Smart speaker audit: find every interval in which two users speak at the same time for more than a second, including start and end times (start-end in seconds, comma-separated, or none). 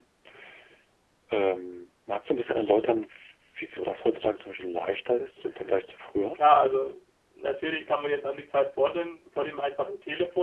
none